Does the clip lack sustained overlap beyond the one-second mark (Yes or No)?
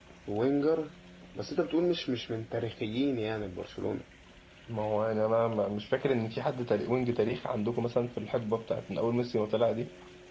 Yes